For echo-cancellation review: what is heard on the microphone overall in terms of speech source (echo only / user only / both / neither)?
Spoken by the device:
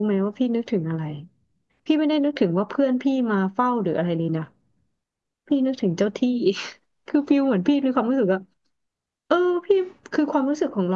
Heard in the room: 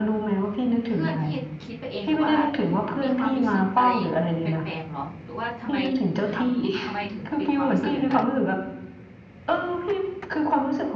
both